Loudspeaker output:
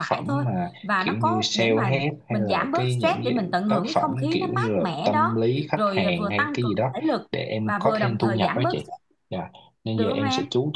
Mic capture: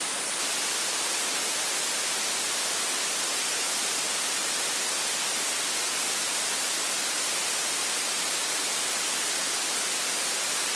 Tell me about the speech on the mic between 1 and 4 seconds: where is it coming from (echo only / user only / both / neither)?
neither